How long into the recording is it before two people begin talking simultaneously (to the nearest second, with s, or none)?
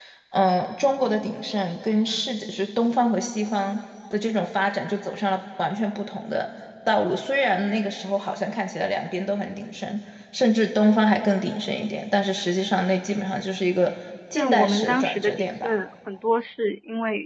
14 s